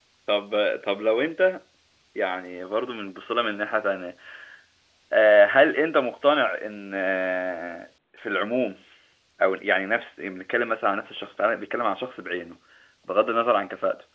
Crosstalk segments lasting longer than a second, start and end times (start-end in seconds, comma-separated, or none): none